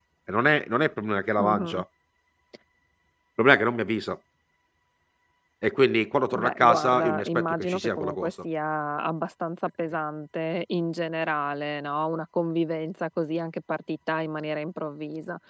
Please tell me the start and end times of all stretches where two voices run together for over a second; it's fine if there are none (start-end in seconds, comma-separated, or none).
6.3-8.3